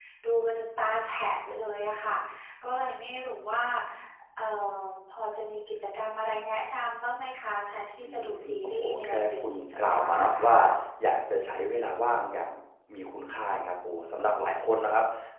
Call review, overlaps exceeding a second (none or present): present